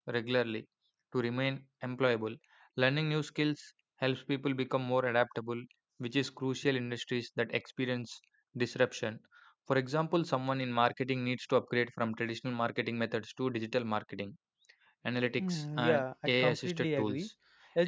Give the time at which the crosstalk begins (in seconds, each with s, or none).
15.4 s